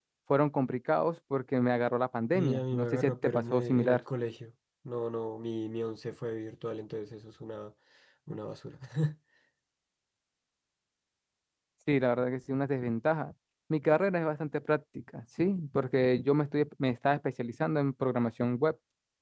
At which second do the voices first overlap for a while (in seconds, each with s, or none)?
2.3 s